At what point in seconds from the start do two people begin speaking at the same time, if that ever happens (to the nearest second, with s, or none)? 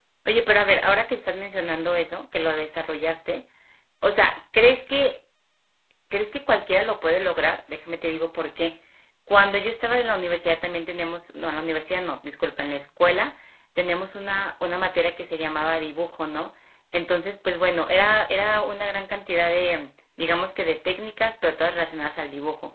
none